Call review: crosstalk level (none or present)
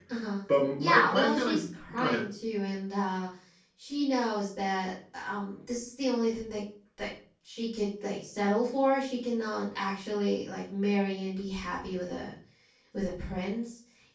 present